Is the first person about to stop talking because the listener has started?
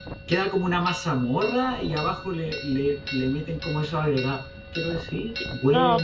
Yes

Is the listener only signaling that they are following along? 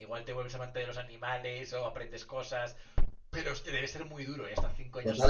No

